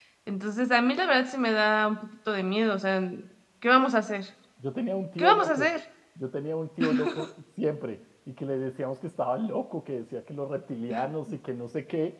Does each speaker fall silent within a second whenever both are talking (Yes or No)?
Yes